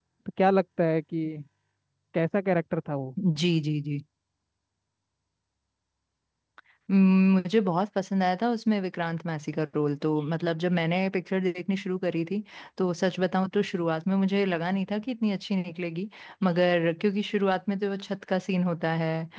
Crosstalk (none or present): none